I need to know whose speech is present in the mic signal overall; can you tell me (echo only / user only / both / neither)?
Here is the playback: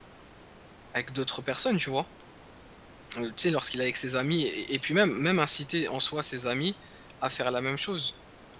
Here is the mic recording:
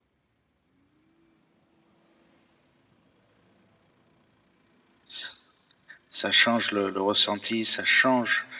user only